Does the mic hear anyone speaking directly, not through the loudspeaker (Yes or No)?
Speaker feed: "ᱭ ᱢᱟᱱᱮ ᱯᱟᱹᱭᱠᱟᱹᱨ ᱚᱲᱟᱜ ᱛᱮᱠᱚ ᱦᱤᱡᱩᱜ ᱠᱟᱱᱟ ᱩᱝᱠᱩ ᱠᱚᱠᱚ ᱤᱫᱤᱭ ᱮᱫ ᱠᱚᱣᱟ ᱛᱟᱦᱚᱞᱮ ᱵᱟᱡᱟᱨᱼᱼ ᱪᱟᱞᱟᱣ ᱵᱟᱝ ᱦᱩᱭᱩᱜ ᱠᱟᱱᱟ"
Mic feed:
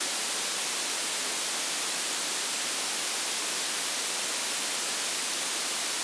No